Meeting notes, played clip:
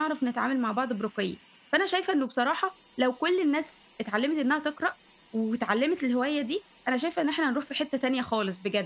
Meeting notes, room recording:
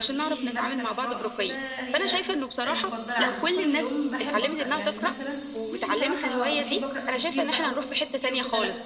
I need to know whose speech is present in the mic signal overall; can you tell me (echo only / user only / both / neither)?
both